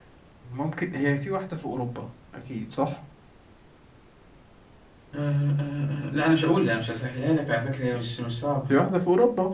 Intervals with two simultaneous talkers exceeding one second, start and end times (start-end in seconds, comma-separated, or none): none